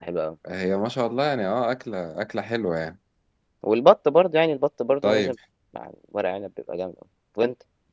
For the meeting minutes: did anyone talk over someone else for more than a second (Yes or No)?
No